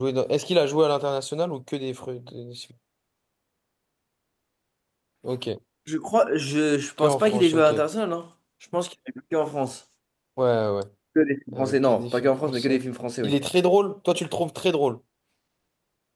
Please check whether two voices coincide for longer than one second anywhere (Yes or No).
Yes